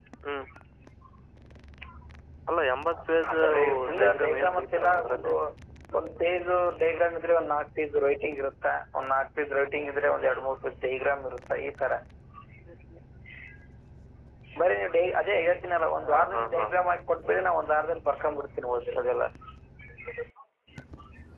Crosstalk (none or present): present